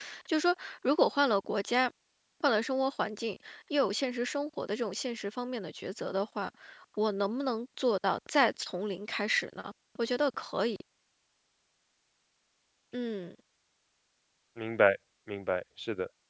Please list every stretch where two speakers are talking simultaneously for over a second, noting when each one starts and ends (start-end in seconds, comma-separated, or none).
none